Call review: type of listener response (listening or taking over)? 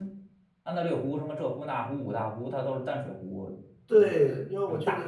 taking over